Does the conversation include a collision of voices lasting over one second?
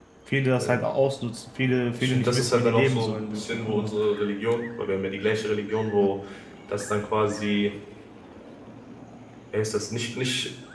Yes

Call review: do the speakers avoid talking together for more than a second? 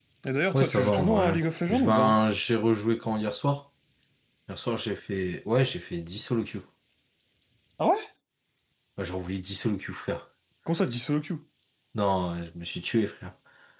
No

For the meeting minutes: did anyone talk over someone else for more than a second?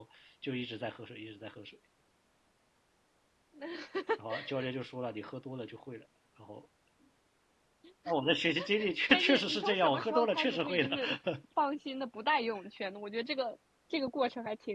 Yes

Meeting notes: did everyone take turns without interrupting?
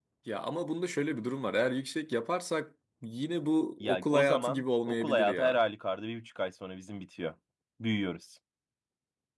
No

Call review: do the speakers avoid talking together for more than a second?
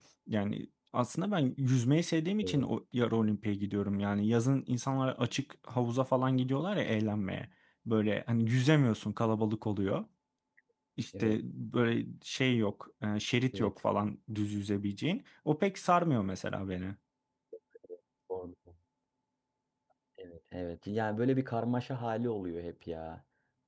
Yes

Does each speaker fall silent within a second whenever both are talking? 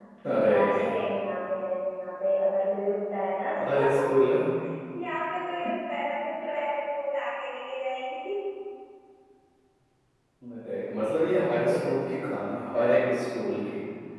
Yes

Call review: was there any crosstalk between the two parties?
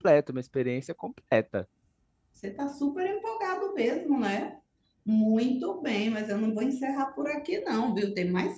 No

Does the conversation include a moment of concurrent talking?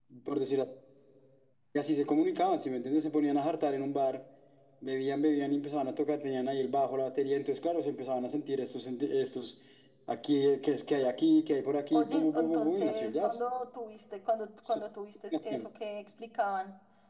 Yes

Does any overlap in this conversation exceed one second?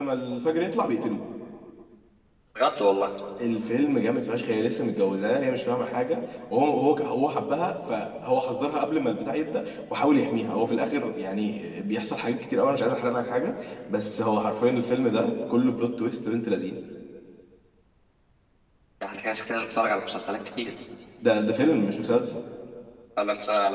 No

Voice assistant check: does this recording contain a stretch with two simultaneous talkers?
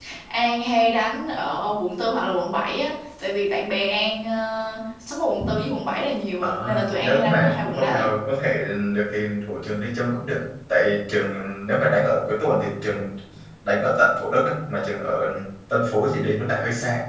Yes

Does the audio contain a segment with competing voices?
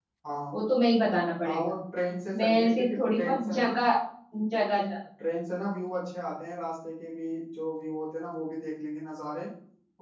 Yes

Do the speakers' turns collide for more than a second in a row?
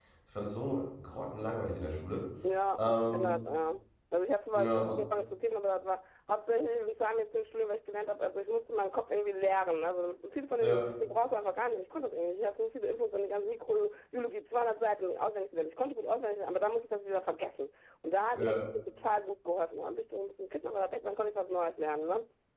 No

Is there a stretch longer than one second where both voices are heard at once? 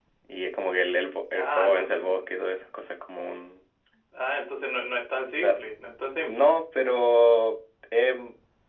Yes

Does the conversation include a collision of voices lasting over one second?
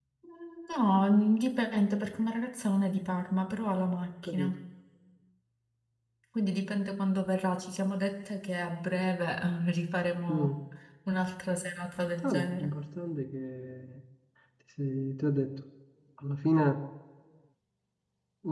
No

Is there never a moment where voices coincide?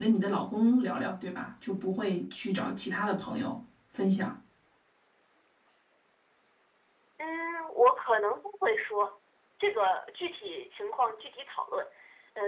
Yes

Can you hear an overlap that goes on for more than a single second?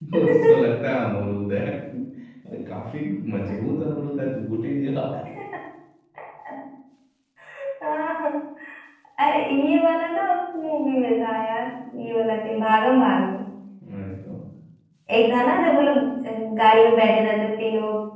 No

